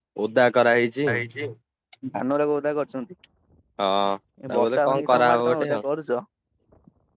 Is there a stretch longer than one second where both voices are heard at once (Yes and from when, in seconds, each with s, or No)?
Yes, from 4.5 s